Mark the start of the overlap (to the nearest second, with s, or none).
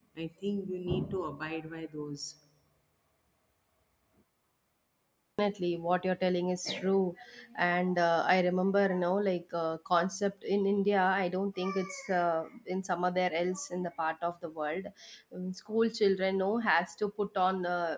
none